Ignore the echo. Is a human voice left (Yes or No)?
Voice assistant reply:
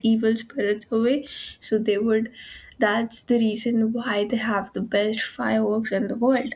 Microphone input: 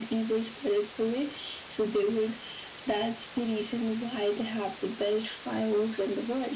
No